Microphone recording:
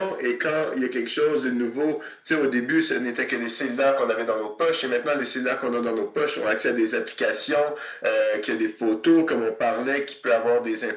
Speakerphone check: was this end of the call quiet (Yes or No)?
Yes